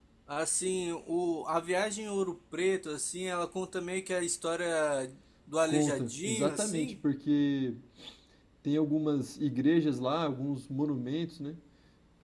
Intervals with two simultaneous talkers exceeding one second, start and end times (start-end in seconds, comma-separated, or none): 5.7-6.9